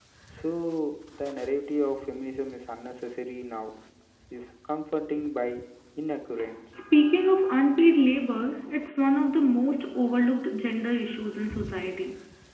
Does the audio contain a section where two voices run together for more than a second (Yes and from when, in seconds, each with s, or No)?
No